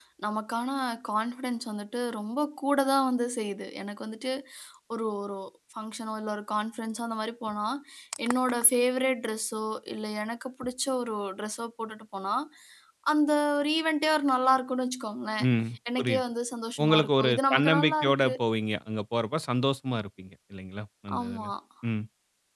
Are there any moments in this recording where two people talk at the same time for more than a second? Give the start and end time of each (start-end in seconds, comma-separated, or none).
16.8-18.3